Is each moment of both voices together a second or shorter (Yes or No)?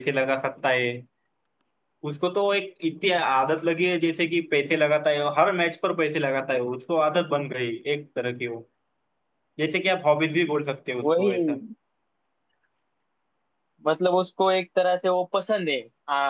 Yes